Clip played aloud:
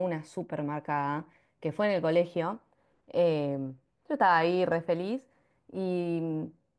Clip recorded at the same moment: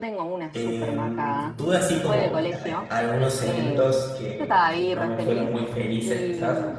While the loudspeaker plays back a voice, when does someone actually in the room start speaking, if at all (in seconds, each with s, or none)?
0.5 s